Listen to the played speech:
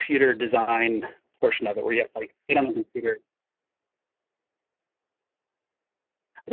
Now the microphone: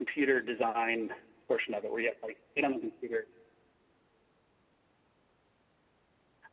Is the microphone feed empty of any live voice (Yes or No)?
Yes